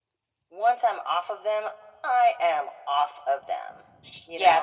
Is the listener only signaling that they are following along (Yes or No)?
No